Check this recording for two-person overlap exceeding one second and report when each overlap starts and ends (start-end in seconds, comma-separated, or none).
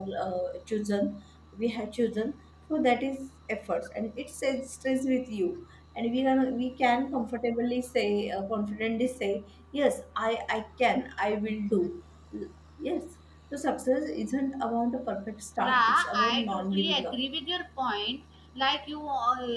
15.6-17.2